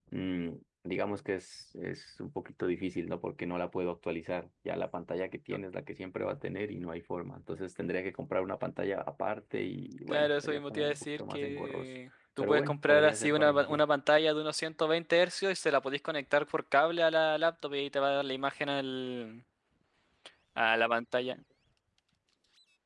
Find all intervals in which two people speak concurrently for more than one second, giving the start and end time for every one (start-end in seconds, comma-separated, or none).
10.1-11.9, 12.4-13.8